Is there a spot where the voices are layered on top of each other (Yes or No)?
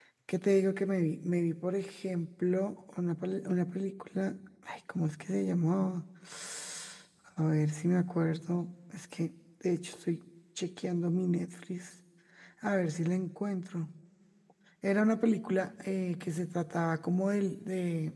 No